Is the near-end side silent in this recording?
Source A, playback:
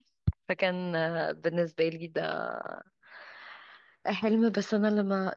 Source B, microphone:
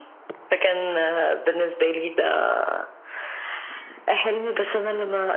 Yes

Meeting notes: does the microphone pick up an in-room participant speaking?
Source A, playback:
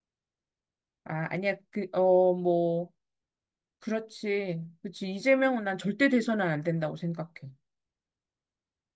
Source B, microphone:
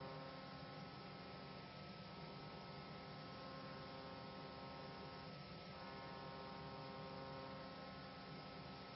No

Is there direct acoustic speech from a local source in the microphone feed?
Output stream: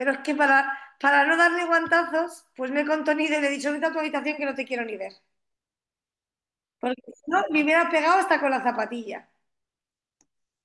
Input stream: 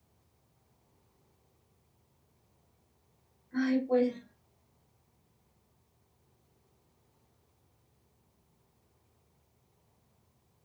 Yes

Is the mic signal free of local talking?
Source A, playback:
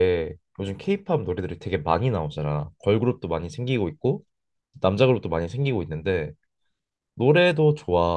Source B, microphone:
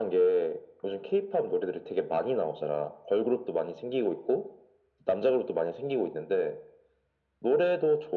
Yes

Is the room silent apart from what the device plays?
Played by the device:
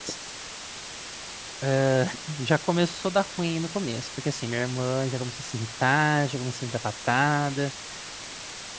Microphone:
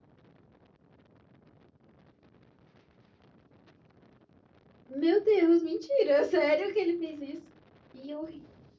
No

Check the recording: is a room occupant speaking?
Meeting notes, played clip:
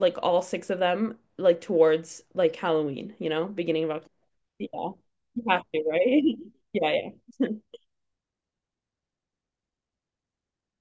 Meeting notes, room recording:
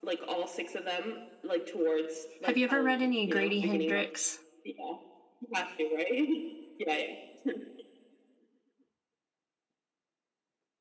Yes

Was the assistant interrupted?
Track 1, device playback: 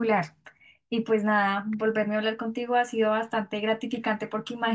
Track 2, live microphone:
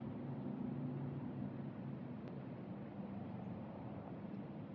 No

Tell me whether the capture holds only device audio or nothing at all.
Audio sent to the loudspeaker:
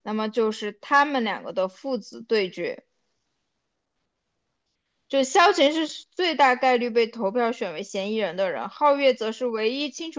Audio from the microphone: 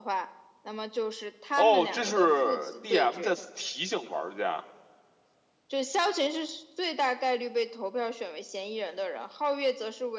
No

